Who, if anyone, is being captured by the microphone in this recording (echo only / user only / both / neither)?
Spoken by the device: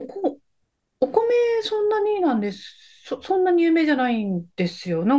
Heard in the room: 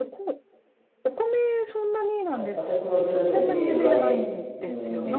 both